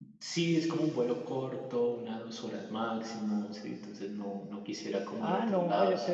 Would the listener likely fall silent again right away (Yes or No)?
No